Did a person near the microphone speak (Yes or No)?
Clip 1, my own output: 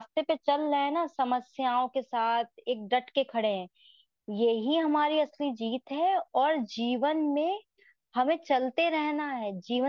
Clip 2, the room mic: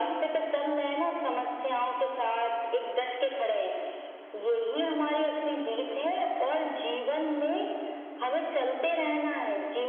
No